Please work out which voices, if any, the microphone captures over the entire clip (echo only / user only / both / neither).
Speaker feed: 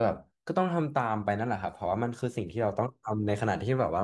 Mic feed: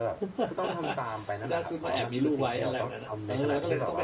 both